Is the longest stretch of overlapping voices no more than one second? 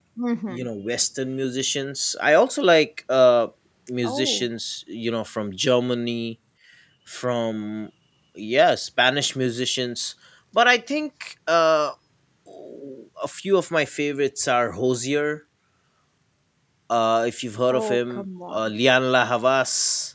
Yes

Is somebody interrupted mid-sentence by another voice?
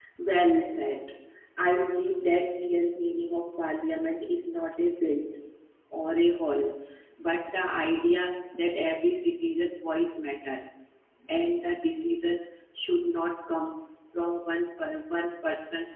No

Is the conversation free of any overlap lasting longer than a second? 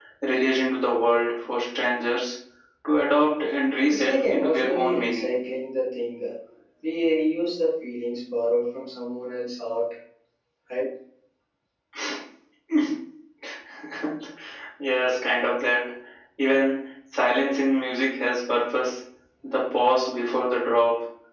No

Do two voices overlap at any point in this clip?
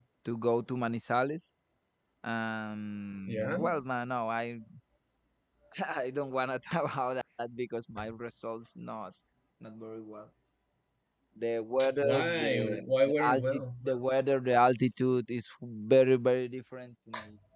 Yes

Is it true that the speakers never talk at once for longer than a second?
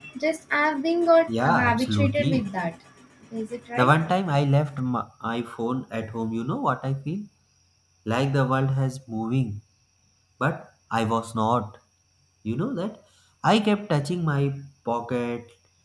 No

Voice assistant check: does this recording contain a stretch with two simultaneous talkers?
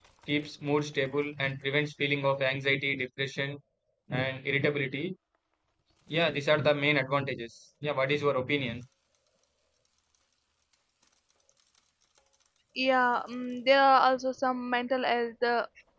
No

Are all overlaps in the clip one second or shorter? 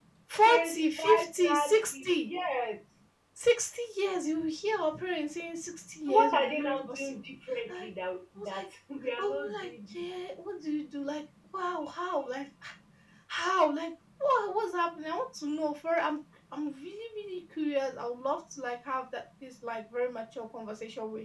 No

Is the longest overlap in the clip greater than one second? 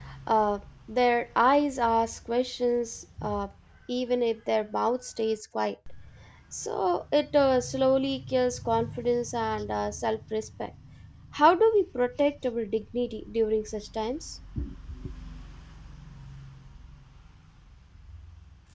No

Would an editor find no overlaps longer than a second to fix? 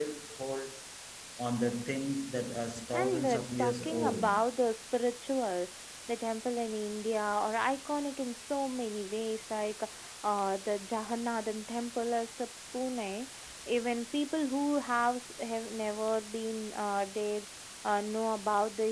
No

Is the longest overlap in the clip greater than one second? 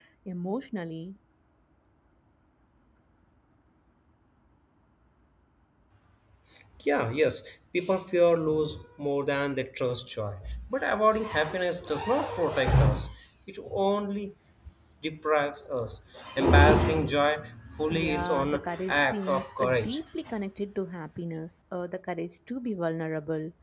Yes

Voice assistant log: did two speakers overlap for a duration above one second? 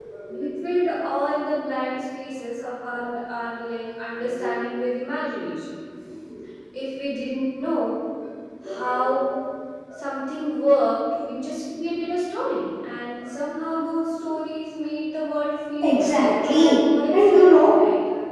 Yes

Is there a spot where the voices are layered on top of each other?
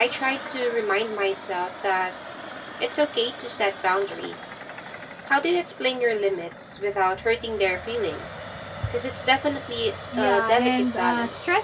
Yes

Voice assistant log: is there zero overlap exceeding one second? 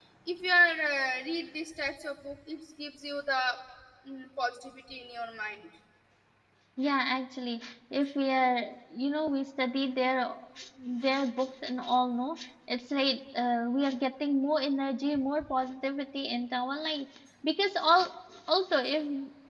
Yes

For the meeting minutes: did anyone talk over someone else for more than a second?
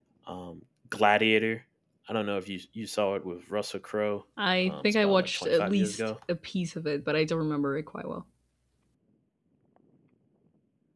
Yes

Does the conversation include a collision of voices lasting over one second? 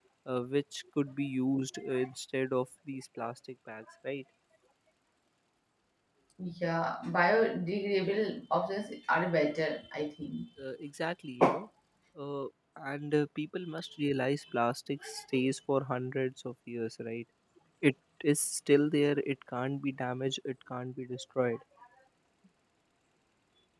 No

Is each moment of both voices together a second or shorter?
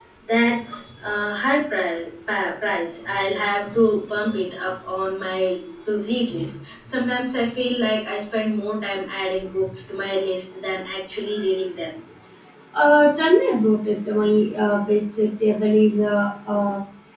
Yes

